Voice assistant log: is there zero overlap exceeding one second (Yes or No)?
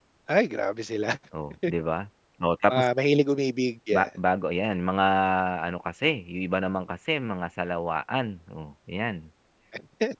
Yes